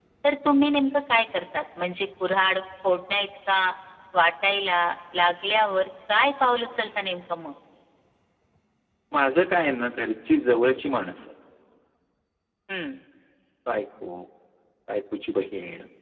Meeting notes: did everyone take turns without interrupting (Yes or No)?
Yes